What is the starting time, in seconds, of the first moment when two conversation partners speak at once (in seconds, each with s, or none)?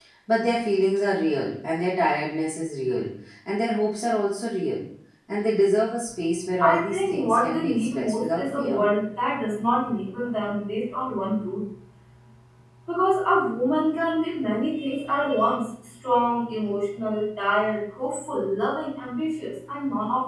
6.6 s